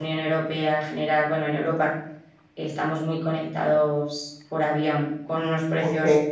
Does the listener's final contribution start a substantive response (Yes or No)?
No